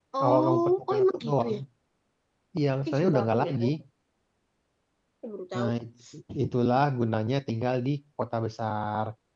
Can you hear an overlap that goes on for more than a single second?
Yes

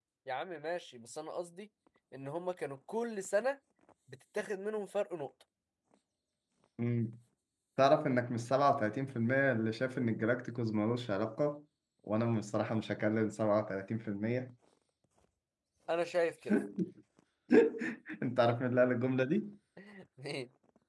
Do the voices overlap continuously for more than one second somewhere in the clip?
No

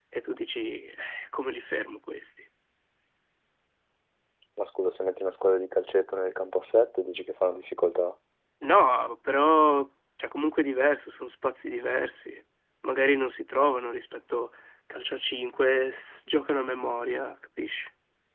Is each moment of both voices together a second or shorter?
Yes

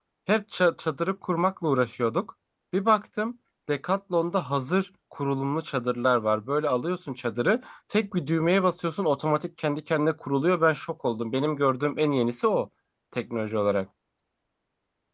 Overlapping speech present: No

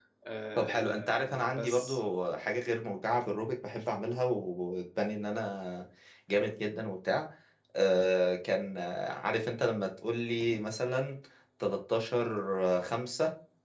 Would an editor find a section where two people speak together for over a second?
Yes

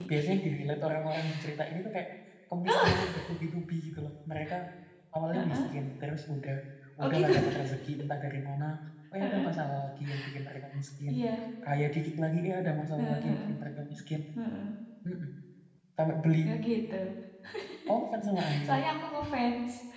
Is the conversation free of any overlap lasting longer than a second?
Yes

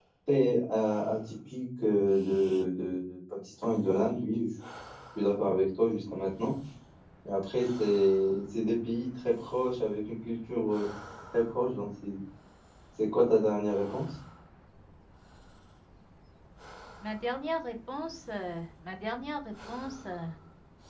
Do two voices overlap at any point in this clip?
No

